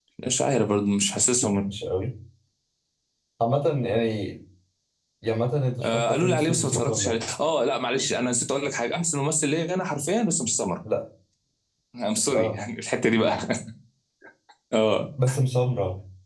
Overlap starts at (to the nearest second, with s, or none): 6 s